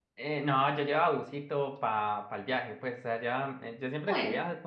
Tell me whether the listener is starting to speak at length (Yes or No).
No